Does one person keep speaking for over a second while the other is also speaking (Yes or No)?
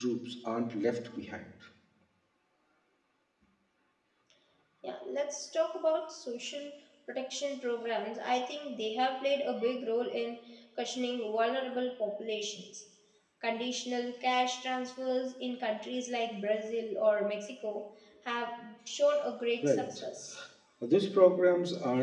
No